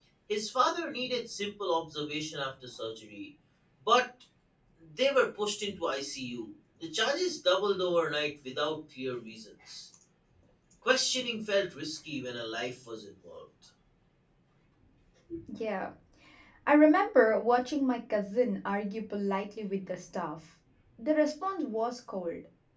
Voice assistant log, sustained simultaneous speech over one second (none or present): none